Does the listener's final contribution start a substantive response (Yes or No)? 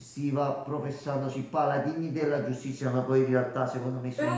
Yes